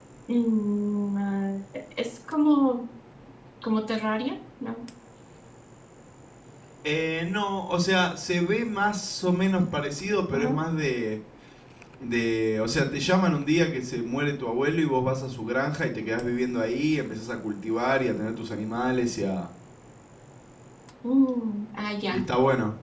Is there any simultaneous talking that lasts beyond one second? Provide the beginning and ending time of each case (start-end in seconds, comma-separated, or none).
none